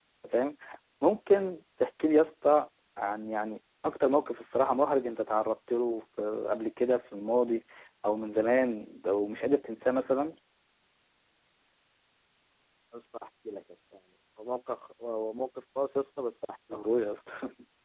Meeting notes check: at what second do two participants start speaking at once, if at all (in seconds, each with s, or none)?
none